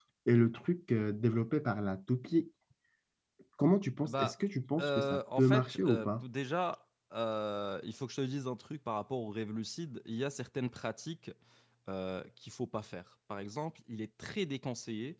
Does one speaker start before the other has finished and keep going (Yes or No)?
Yes